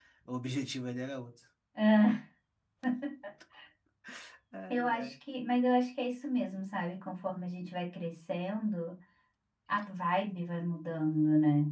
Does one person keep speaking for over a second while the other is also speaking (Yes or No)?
No